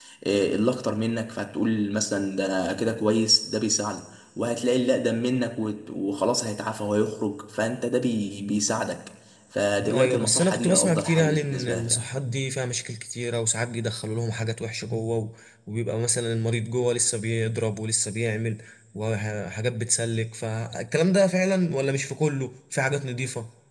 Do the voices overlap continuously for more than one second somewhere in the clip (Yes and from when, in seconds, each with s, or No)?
Yes, from 9.8 s